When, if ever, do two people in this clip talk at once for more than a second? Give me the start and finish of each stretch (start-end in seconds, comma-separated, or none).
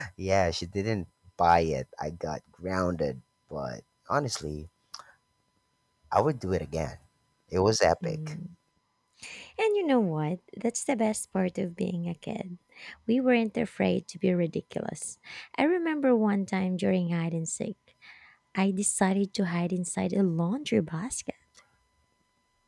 none